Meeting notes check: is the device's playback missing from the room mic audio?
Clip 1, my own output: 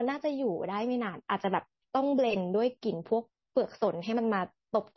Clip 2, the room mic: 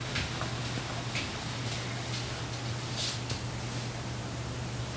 Yes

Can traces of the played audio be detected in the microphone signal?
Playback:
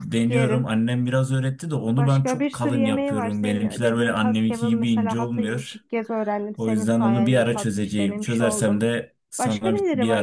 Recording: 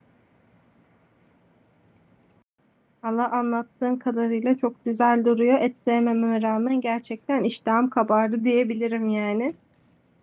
No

